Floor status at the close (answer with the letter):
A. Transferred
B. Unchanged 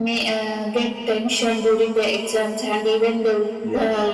B